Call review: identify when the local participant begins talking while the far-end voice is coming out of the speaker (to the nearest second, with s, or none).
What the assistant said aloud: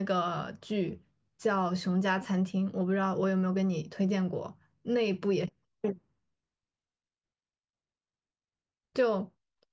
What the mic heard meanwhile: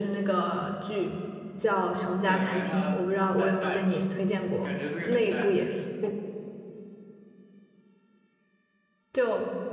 2 s